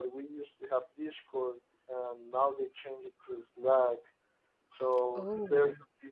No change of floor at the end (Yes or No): Yes